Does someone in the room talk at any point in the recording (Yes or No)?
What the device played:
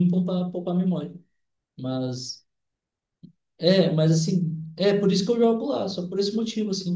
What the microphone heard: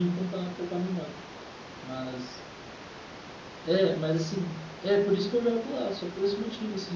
No